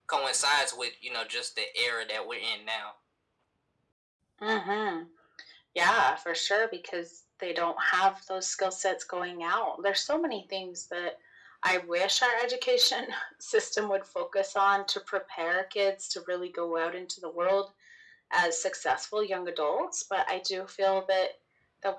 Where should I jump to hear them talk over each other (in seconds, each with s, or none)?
none